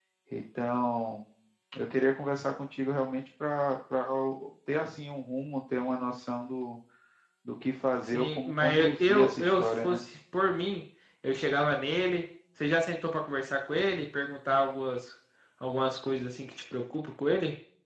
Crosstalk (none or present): present